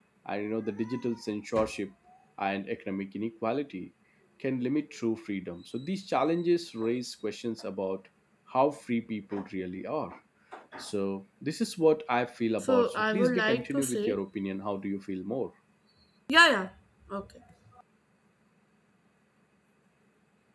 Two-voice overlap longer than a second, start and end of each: 12.6-14.2

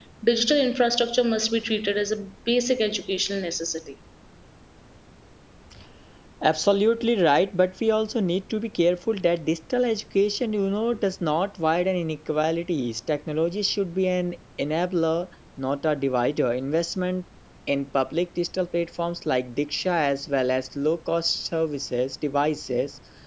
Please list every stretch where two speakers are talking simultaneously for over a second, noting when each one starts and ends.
none

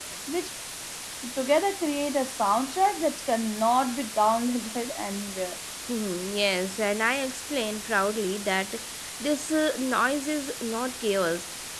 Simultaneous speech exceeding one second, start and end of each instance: none

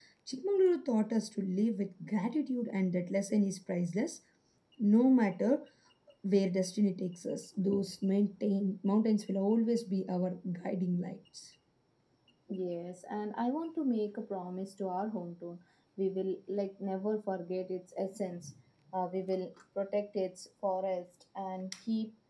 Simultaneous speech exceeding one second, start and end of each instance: none

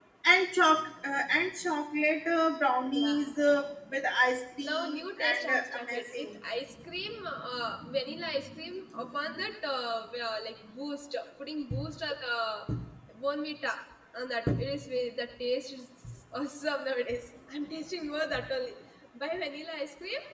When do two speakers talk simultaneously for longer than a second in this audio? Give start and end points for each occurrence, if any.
4.7-6.4

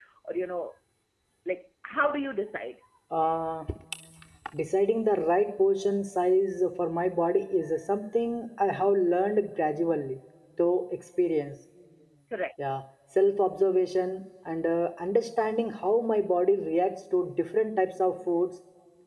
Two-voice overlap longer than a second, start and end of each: none

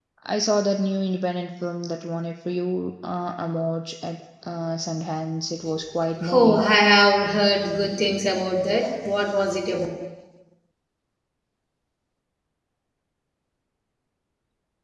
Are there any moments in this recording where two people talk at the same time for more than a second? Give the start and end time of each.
none

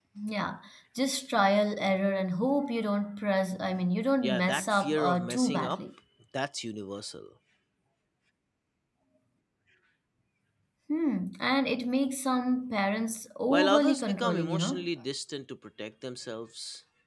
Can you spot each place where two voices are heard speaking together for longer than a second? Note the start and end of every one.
4.2-5.8, 13.5-14.9

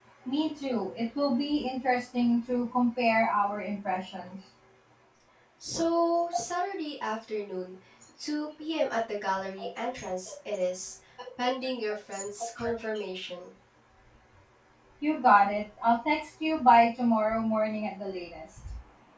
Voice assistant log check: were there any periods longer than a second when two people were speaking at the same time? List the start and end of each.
none

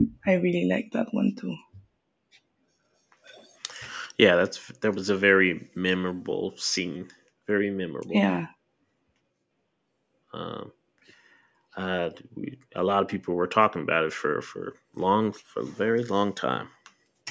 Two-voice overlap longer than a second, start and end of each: none

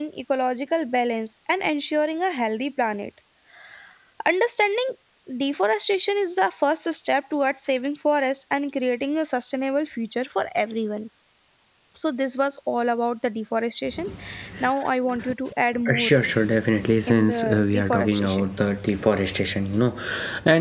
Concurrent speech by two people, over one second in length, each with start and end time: 17.1-18.5

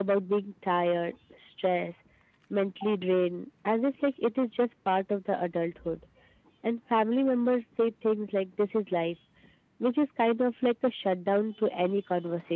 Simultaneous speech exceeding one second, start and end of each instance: none

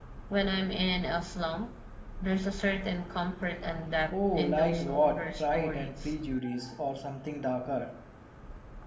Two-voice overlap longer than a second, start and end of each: 4.1-6.1

